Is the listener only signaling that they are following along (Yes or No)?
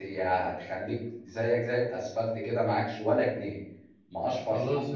No